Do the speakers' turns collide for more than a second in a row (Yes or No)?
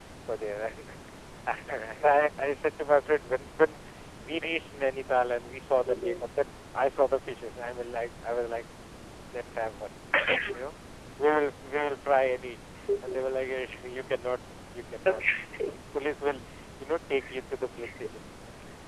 No